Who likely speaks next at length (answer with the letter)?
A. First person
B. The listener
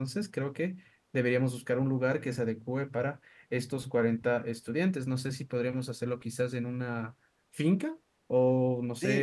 B